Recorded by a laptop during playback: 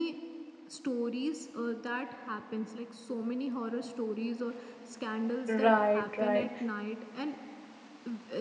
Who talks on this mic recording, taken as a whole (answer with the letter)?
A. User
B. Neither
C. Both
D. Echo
C